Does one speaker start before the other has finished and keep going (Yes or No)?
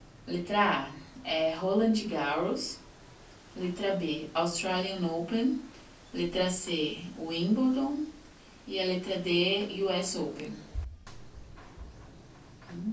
No